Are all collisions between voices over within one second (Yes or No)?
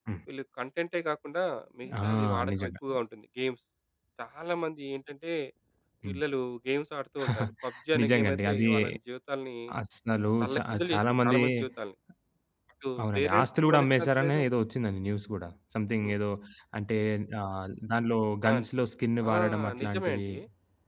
No